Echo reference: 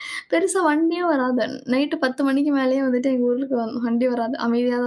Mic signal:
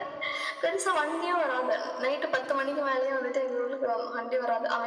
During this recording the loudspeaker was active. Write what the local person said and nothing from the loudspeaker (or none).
none